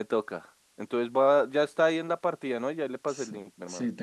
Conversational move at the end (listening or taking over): taking over